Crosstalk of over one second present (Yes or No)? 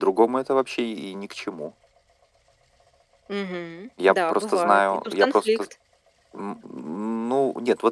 Yes